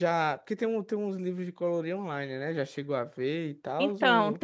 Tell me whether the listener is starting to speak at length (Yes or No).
Yes